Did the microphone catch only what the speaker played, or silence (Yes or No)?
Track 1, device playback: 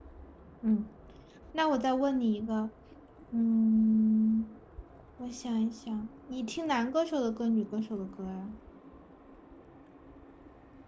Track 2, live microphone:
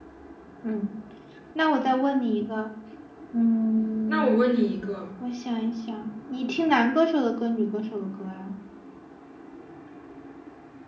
No